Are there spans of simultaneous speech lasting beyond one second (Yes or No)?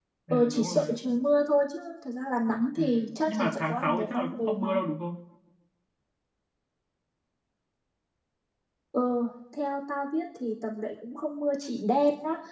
Yes